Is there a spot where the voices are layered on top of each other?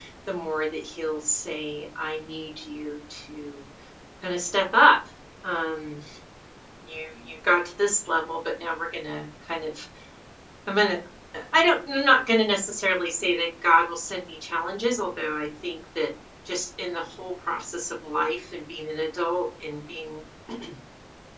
No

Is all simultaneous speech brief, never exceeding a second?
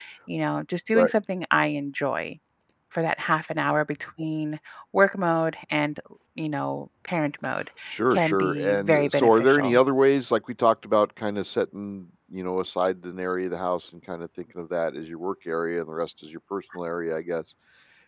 No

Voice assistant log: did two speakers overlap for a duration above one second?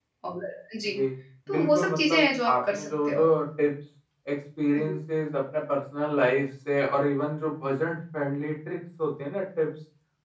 Yes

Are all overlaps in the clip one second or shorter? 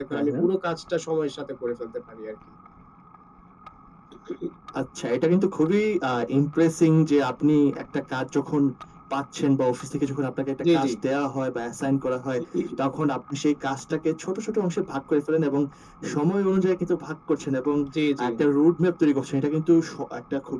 Yes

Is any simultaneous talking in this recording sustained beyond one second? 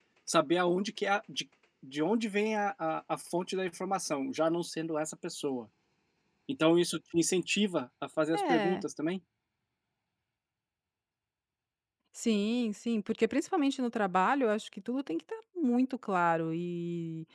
No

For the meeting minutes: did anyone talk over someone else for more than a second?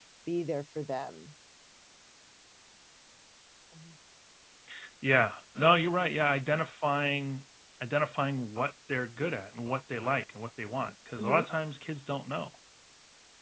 No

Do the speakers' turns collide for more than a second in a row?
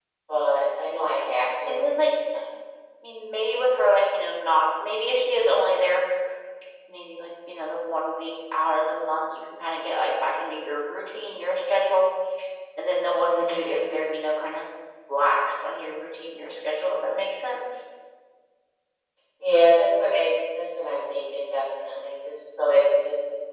No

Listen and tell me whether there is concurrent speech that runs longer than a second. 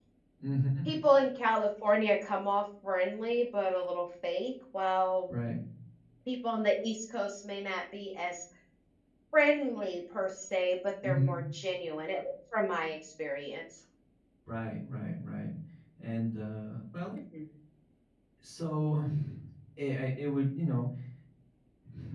No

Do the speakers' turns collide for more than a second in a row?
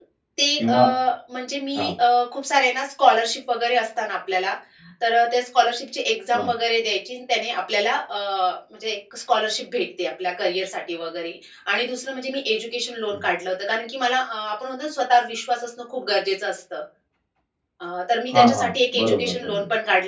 Yes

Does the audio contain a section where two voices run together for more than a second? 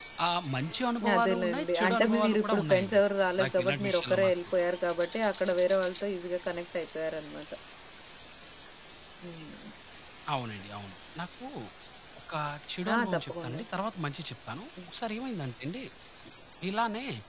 Yes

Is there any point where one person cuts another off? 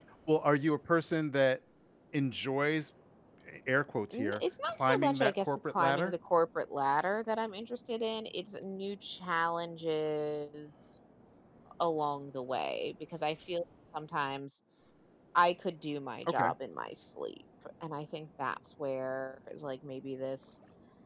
Yes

